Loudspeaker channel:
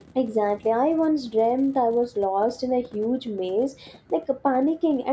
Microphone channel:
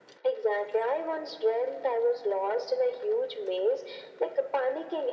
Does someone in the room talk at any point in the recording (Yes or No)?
No